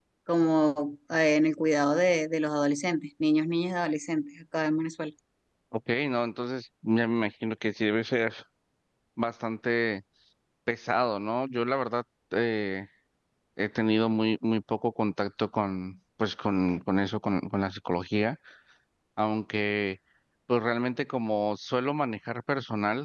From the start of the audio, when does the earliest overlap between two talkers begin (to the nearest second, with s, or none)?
none